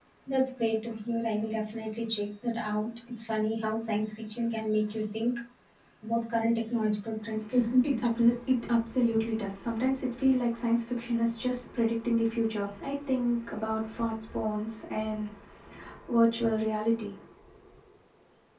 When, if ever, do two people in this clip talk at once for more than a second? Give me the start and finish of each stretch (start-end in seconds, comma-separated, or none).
none